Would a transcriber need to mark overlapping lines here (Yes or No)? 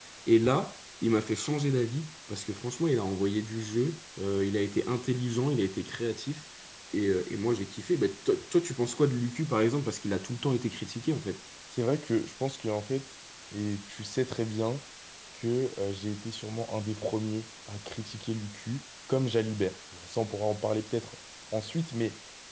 No